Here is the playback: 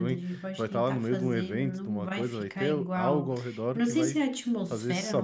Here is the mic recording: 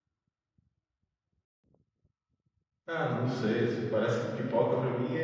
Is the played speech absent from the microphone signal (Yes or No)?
Yes